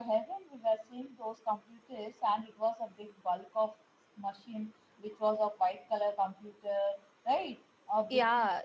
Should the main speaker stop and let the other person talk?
Yes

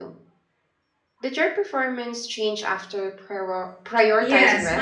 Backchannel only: No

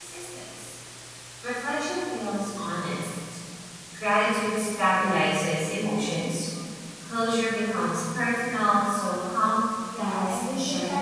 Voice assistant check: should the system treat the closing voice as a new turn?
Yes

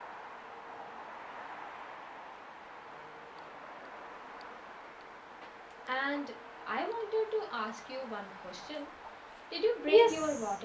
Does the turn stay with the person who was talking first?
No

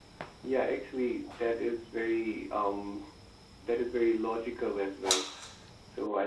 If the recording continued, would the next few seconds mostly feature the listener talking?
No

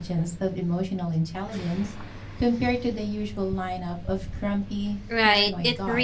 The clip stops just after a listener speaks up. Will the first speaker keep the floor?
No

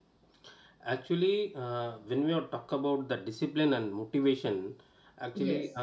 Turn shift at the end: No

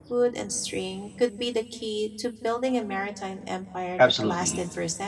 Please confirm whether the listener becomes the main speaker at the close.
Yes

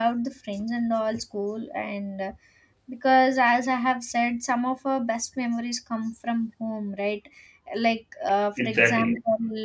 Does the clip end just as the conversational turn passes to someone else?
No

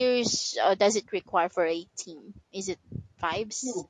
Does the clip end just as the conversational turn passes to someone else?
Yes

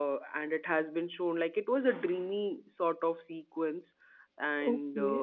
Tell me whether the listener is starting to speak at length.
Yes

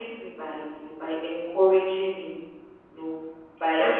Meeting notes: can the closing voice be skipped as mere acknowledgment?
Yes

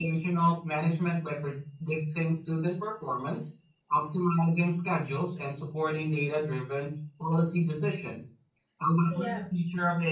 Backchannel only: Yes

